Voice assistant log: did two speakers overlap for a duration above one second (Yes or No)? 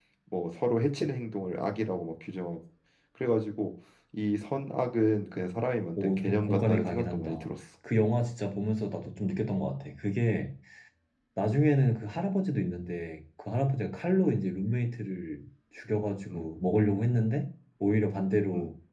Yes